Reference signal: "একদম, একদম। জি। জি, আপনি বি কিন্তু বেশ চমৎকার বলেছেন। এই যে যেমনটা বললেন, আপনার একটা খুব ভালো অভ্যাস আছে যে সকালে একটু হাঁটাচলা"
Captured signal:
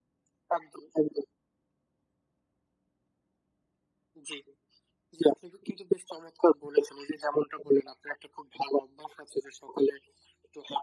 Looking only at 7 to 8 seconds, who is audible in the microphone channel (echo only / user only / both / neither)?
echo only